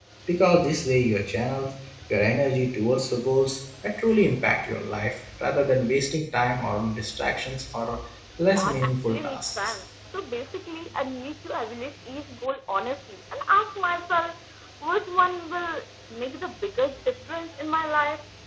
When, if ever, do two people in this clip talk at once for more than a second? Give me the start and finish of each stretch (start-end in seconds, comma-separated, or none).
8.4-9.7